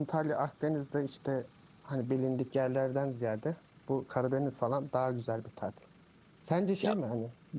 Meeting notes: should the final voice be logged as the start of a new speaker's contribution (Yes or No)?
No